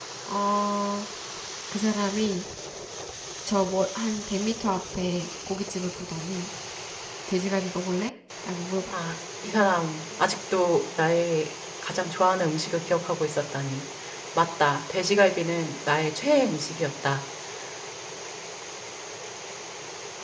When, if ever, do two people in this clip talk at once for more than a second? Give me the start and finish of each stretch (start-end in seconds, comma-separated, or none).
none